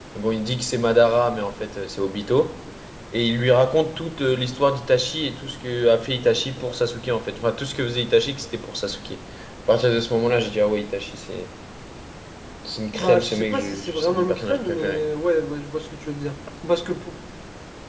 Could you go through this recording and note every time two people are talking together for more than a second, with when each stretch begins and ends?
12.9-15.0

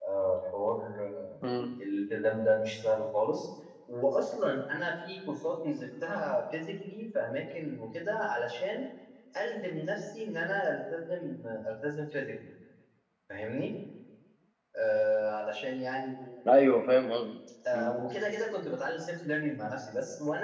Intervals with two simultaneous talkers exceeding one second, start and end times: none

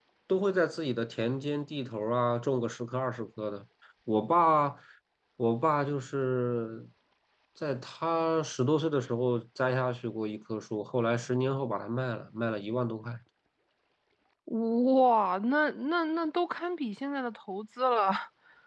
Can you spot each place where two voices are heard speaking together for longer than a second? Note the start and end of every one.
none

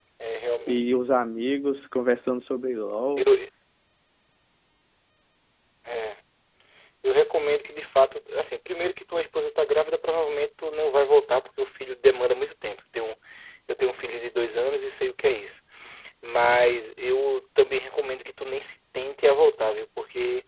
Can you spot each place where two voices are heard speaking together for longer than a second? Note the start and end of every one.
none

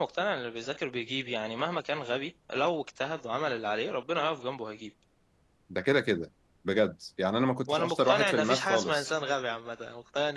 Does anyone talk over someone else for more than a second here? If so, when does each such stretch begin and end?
7.7-9.1

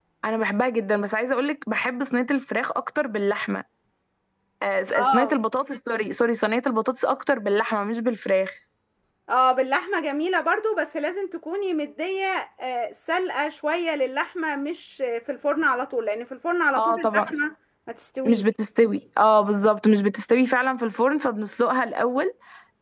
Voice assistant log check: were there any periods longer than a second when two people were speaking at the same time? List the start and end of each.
none

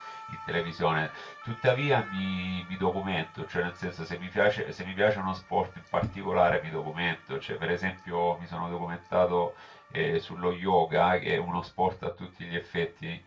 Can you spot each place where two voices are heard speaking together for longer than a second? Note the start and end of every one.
none

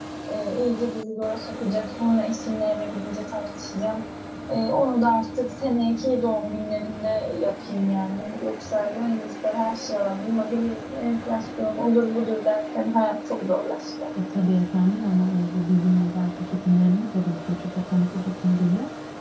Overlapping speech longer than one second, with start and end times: none

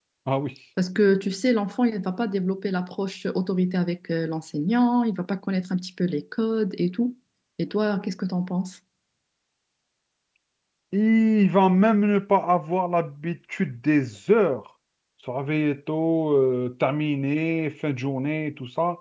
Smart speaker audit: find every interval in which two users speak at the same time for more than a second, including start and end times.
none

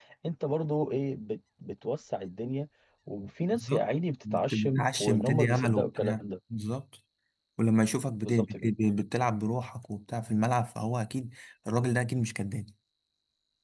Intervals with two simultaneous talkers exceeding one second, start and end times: 4.3-6.2

